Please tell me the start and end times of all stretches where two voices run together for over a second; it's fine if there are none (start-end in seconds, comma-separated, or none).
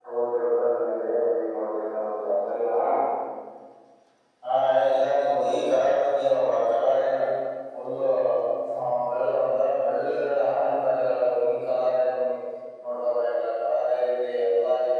none